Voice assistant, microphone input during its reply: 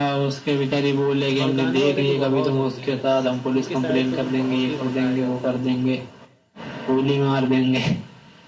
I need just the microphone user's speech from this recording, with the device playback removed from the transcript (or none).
بھڑکانے والے تو بہت ہوتے ہیں ان کی سائڈ سے تو بہت ہی بھڑکایا جاتا ہے